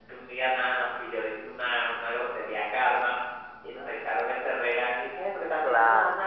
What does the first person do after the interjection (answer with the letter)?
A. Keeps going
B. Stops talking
A